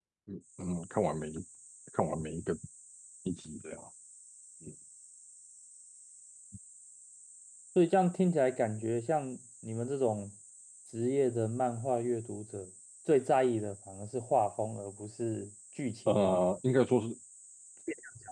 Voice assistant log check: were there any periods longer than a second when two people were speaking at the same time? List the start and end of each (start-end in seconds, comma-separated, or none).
none